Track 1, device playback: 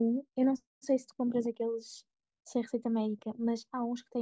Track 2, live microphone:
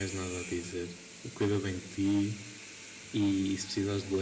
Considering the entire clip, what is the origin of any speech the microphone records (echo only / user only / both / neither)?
user only